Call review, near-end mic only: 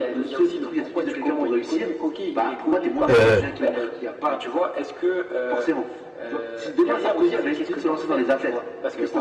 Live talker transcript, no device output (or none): euh,